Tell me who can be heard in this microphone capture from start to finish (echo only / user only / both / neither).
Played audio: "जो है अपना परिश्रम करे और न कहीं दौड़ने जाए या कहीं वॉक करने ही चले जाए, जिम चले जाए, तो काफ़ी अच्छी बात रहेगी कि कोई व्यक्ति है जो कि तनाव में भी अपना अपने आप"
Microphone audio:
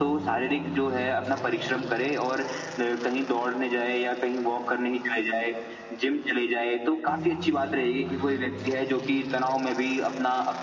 echo only